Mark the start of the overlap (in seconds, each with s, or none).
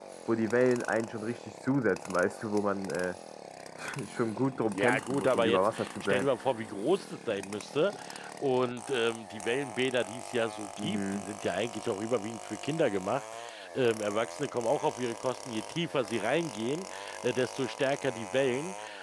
4.7 s